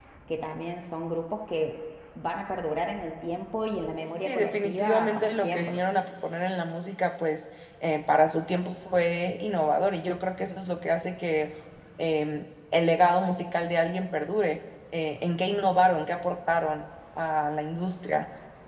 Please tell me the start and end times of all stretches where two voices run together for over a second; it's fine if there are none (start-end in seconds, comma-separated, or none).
4.2-5.8